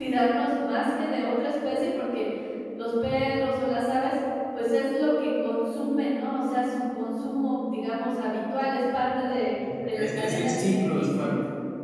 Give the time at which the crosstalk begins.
9.6 s

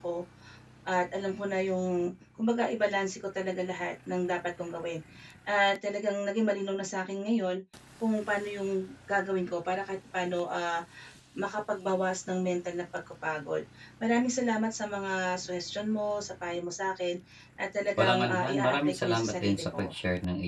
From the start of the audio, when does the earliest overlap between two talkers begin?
18.0 s

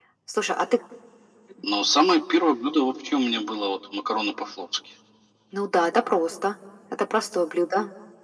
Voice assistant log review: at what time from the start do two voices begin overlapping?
none

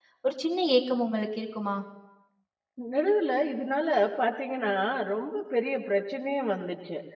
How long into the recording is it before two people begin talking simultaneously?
none

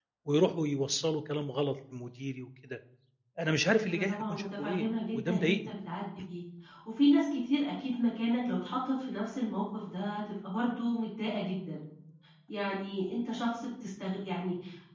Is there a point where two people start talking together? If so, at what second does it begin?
3.9 s

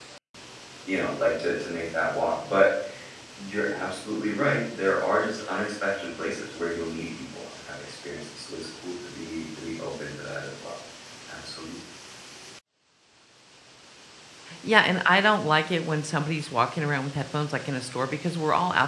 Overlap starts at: none

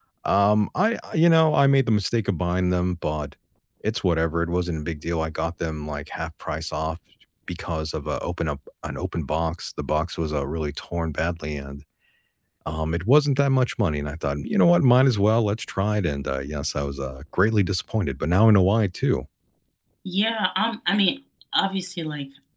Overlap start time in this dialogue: none

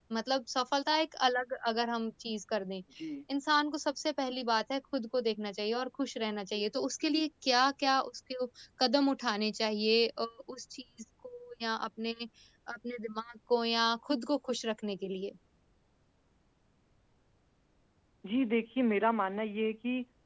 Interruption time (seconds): none

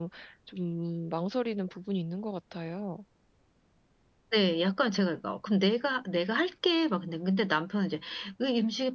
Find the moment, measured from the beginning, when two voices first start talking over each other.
none

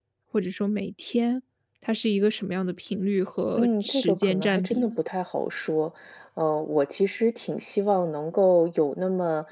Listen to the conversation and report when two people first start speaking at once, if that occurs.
3.6 s

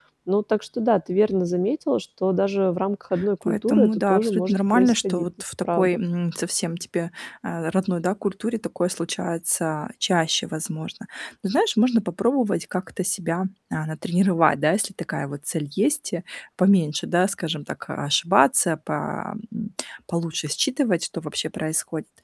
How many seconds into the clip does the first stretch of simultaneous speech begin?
3.4 s

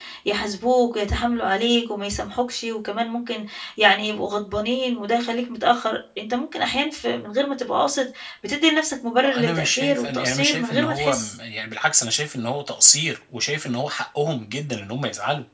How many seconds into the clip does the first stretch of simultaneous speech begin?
9.2 s

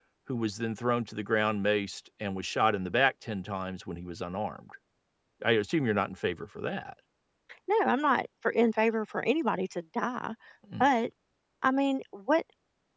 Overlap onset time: none

